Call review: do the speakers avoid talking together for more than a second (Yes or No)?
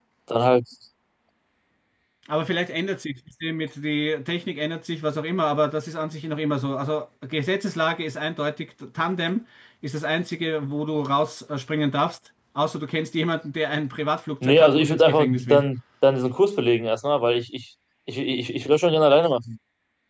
No